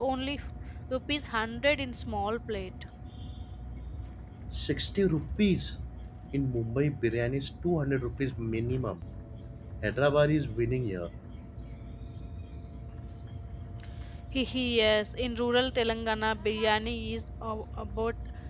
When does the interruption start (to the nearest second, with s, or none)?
none